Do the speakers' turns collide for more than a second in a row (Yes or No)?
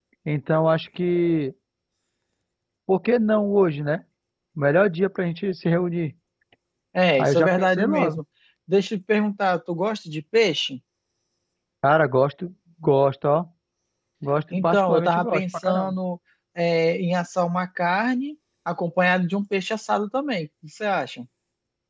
Yes